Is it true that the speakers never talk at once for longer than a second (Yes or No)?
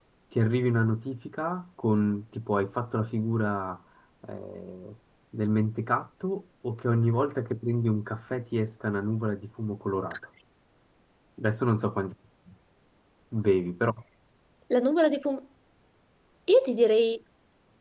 Yes